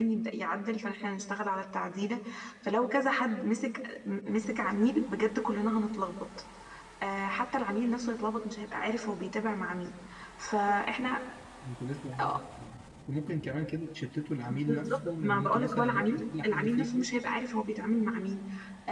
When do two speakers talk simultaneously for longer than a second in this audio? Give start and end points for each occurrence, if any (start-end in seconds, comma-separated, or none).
14.5-17.1